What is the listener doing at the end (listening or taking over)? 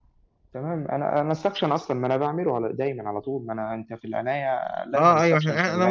taking over